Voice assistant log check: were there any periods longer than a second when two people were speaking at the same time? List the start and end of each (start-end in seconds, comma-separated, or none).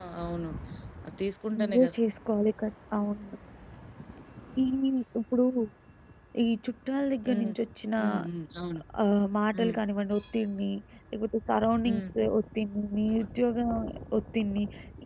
none